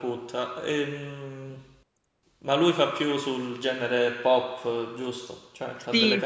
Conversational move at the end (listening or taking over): taking over